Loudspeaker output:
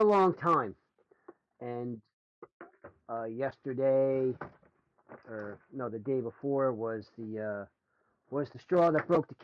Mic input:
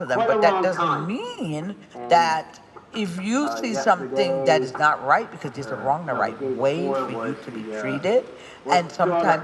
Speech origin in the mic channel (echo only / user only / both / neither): both